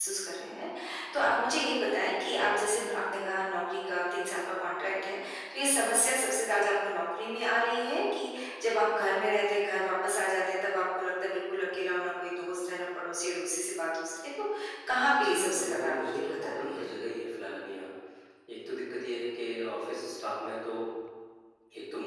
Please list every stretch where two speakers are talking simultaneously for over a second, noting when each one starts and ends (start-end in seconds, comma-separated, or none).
15.2-16.9